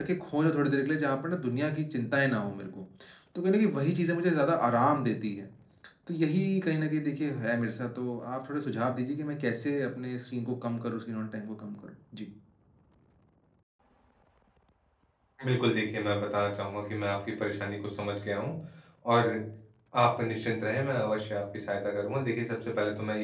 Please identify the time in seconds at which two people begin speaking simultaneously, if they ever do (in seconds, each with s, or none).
none